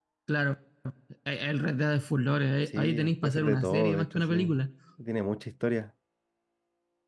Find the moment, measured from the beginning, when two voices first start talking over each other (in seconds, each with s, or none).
2.7 s